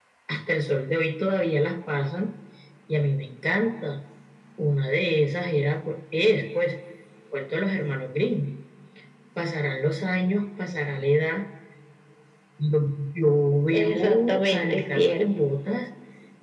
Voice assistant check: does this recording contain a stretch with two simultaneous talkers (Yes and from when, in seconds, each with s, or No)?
Yes, from 13.7 s